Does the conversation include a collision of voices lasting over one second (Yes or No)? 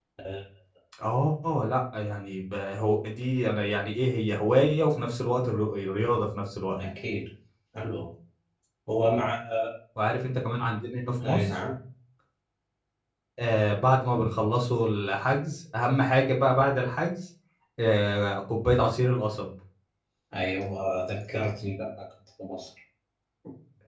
No